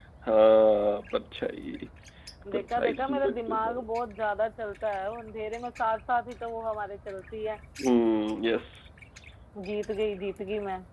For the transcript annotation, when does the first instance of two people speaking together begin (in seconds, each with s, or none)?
2.5 s